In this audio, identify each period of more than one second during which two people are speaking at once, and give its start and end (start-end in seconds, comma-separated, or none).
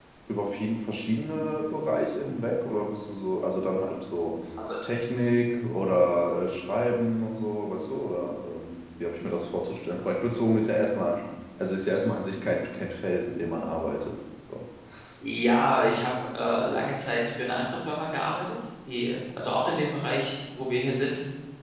none